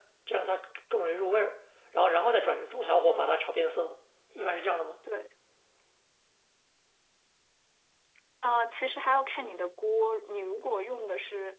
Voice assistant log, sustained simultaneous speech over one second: none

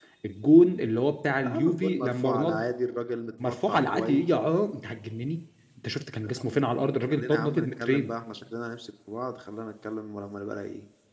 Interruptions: present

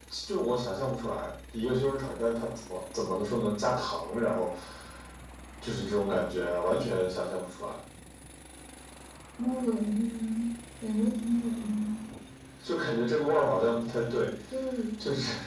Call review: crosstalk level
none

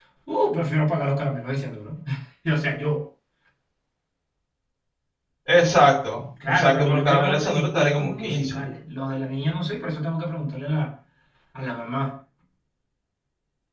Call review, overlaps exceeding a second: present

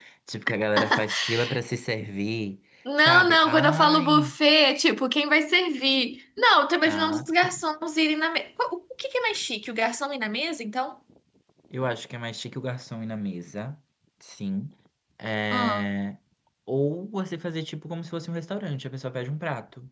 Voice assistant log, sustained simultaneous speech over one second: present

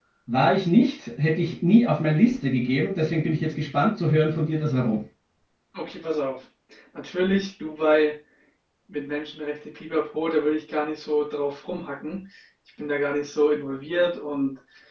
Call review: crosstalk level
none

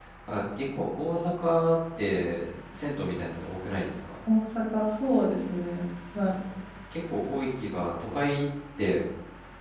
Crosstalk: none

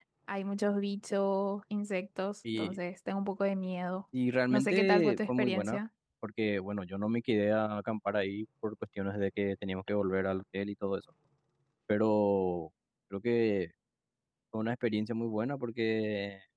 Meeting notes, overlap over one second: present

